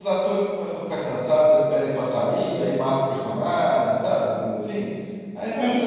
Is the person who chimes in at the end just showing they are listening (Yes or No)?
No